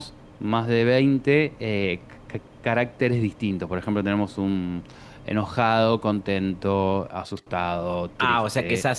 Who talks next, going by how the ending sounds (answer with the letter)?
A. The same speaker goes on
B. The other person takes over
B